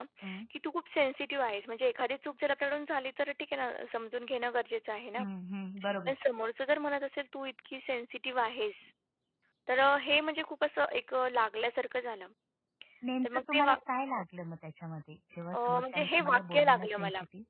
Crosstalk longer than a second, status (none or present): present